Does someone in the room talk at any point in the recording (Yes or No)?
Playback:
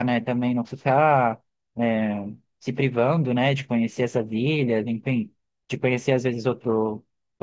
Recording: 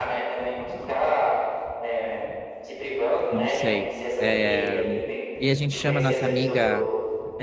Yes